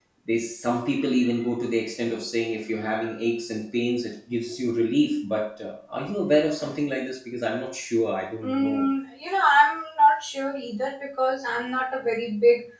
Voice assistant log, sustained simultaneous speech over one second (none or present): none